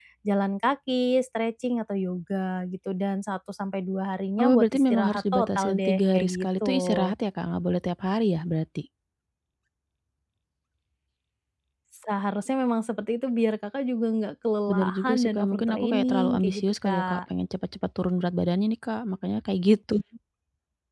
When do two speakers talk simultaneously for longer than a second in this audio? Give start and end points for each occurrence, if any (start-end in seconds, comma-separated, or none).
4.4-7.1, 14.7-17.2